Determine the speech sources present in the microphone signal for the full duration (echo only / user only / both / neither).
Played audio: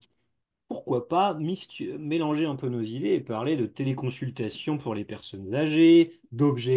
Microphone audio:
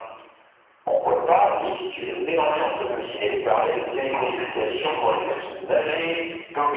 echo only